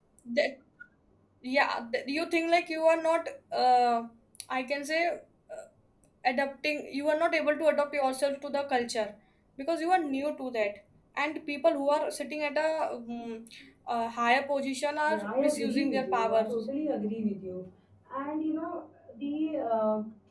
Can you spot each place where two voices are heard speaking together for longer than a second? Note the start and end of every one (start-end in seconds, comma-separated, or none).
15.1-16.4